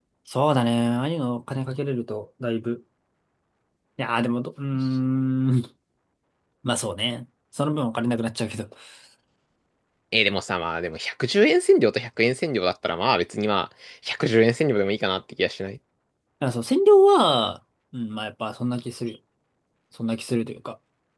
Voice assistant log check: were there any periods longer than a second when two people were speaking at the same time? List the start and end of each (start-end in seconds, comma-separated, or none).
none